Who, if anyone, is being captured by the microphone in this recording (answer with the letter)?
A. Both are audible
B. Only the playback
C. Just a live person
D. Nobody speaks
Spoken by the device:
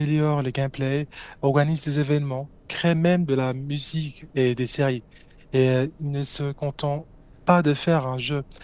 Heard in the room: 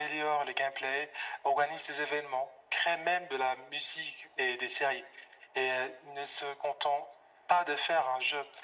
B